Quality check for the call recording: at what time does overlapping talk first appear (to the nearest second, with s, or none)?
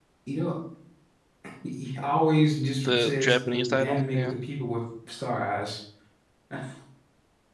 3 s